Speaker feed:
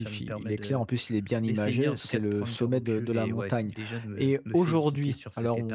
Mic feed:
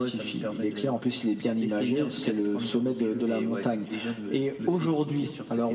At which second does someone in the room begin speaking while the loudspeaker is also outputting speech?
none

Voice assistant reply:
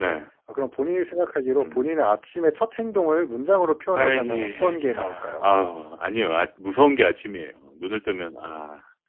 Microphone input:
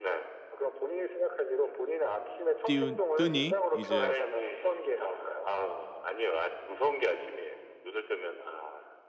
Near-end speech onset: 2.6 s

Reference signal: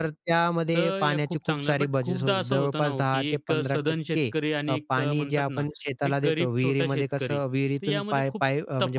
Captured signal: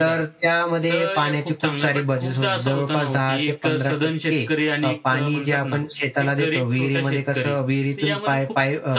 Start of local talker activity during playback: none

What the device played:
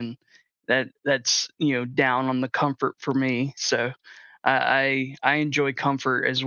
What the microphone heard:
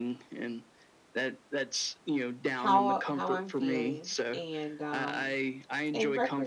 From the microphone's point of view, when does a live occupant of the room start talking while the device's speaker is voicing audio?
2.5 s

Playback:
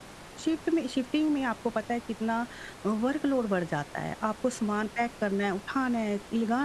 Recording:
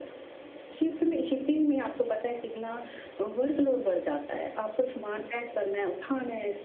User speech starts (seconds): none

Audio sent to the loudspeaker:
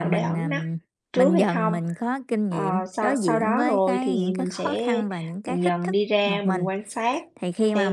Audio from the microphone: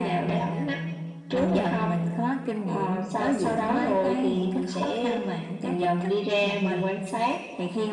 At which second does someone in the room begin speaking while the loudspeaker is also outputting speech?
none

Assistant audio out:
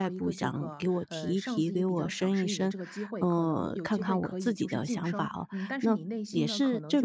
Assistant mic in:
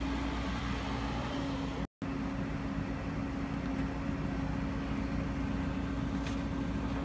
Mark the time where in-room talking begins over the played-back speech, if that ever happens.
none

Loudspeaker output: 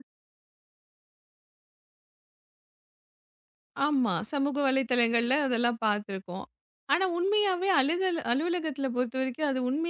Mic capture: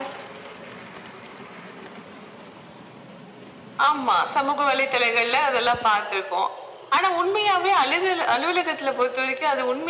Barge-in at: none

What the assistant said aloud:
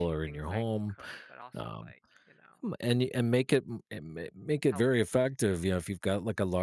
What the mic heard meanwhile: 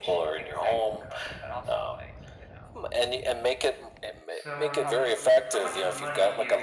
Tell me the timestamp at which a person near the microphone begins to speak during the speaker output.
4.3 s

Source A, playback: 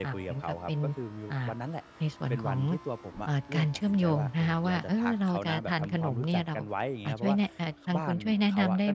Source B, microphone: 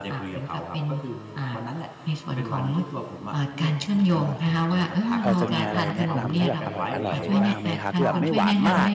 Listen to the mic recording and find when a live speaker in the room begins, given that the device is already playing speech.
5.2 s

